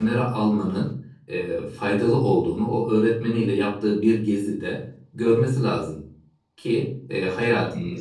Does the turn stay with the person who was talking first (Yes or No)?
Yes